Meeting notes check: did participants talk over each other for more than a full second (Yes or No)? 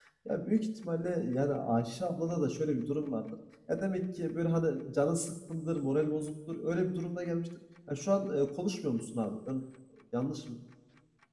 No